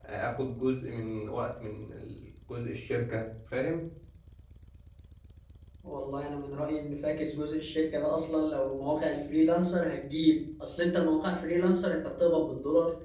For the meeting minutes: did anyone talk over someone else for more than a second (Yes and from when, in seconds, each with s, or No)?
No